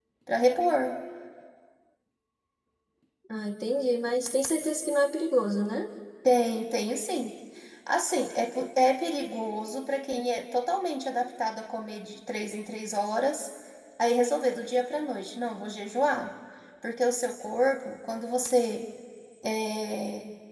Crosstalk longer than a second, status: none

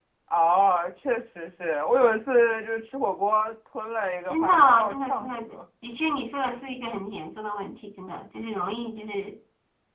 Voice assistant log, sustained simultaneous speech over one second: present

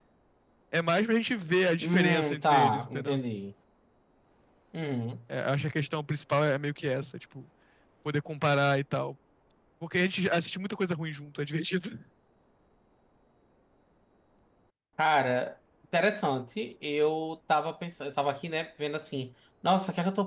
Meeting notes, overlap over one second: present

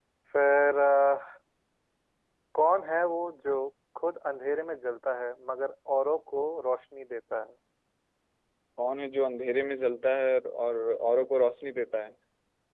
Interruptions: none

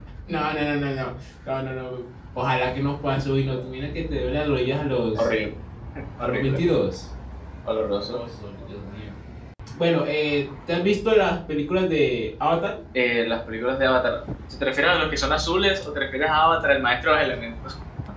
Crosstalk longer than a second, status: none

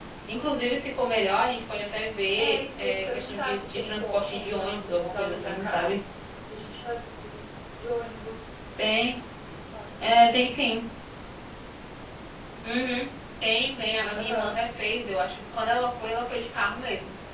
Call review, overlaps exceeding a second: present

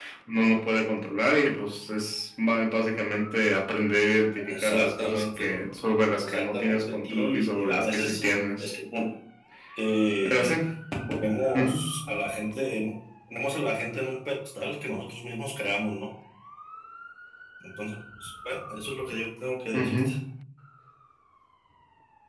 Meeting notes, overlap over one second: present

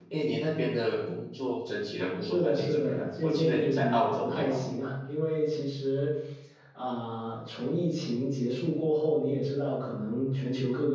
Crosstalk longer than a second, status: present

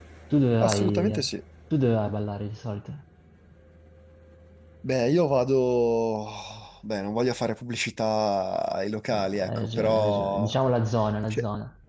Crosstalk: present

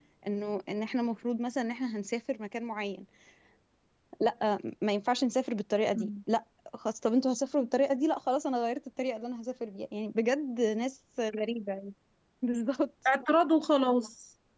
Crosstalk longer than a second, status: none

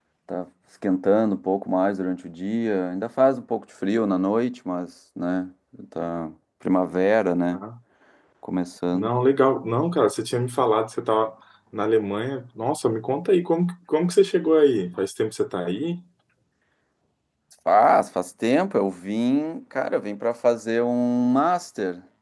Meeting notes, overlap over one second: none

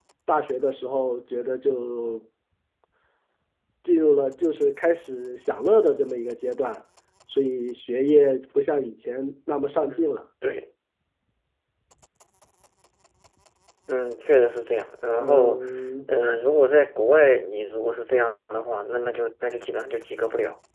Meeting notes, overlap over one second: none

